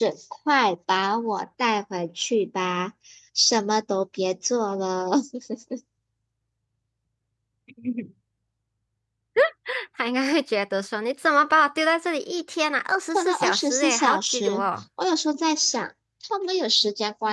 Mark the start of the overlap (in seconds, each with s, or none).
13.1 s